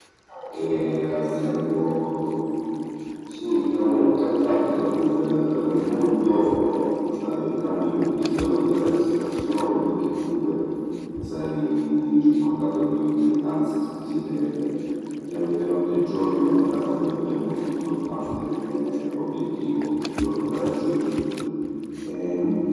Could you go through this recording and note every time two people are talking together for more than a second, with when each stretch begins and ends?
0.5-1.9

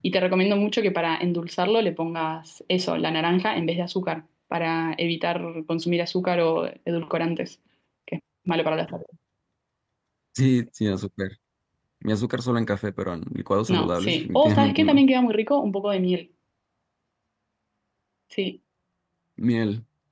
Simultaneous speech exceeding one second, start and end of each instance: 13.7-15.0

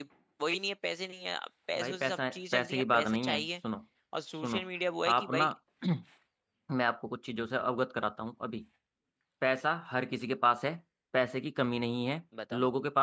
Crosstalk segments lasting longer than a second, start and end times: 1.8-3.5

